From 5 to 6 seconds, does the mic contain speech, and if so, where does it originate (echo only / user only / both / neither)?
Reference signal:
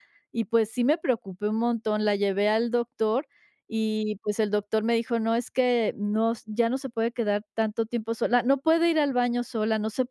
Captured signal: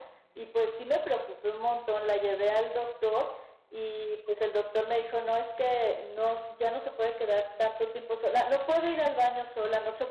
echo only